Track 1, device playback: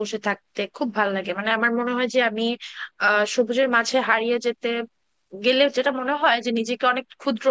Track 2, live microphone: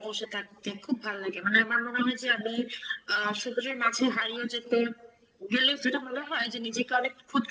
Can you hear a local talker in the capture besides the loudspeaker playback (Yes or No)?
No